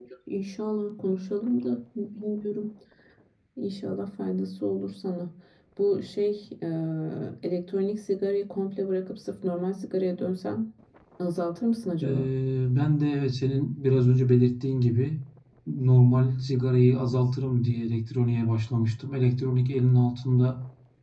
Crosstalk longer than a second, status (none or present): none